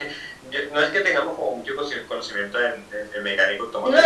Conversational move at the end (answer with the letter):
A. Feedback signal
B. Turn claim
B